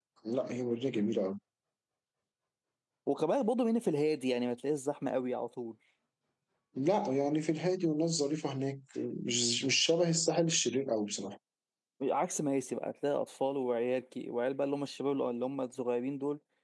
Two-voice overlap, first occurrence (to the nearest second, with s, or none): none